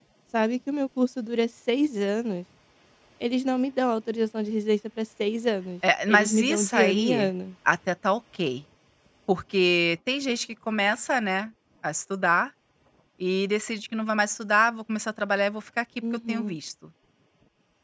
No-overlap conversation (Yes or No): No